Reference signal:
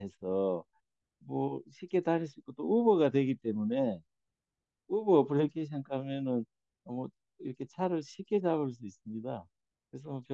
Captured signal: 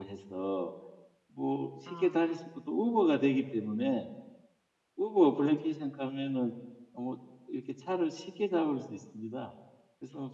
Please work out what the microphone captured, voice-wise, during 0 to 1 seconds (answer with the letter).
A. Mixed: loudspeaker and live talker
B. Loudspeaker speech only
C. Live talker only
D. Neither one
B